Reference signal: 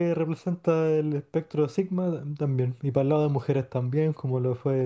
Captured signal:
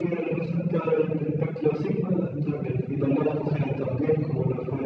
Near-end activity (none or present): none